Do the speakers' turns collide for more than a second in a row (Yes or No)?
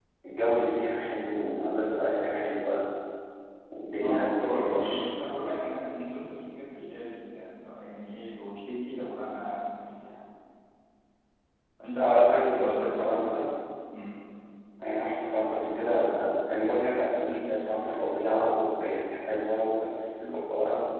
Yes